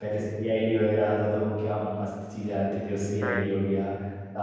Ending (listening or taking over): listening